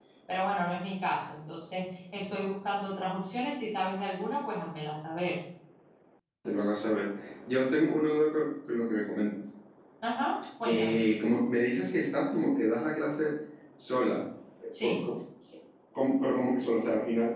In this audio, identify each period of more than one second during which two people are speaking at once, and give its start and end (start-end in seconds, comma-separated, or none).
none